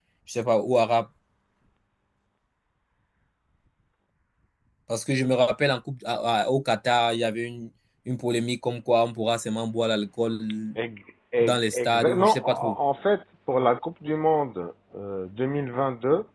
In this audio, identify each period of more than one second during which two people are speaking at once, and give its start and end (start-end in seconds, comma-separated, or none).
11.4-12.8